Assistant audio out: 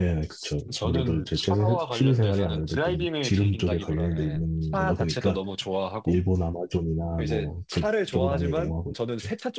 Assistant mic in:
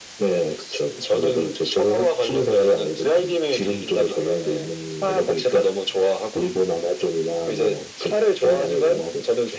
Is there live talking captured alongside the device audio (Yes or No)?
No